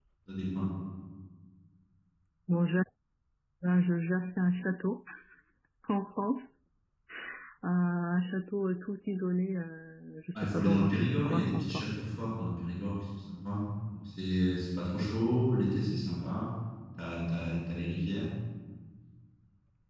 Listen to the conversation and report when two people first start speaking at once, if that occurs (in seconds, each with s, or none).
10.3 s